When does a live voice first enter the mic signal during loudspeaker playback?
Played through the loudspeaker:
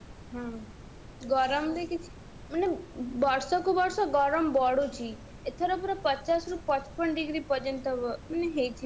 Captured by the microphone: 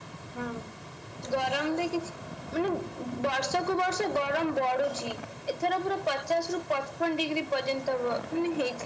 none

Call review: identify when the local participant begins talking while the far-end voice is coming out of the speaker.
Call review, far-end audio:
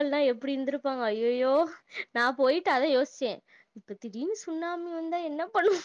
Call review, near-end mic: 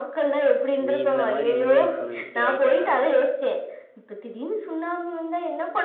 0.9 s

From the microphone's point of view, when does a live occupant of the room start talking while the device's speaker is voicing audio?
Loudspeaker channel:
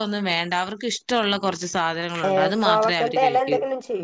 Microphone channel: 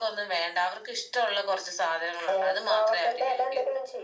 none

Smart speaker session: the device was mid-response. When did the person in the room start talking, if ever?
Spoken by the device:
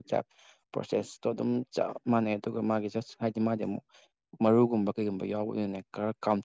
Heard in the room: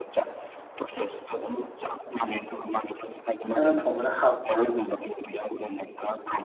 3.5 s

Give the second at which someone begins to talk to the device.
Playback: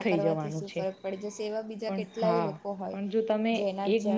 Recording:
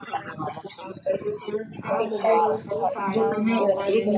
1.9 s

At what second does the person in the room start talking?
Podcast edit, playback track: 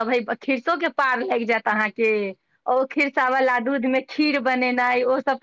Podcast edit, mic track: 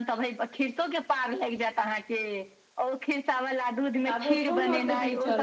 4.0 s

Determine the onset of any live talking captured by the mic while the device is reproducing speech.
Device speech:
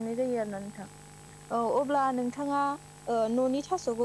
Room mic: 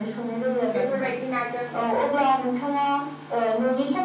0.8 s

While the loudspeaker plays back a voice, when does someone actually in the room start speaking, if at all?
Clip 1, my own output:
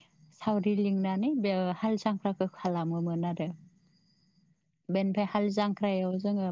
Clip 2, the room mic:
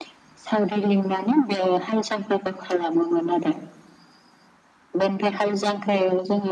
none

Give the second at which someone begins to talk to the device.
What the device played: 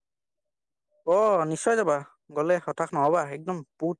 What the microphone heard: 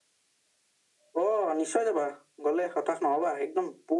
none

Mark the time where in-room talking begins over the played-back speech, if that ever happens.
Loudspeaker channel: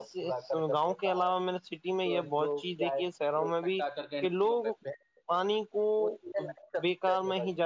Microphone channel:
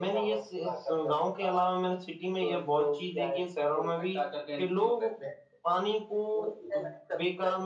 none

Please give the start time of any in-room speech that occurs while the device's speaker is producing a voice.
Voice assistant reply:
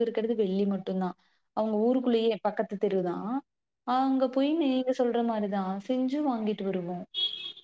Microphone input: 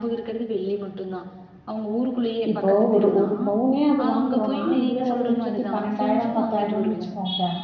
2.5 s

